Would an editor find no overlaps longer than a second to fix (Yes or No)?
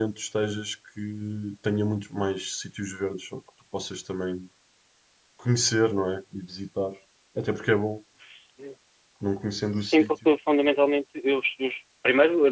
Yes